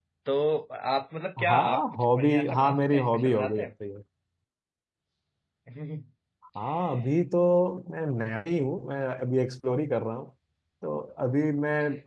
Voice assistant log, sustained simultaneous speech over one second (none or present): present